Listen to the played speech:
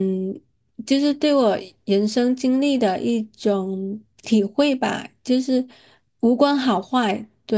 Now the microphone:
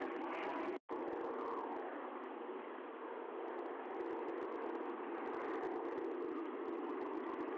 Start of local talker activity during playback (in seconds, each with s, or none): none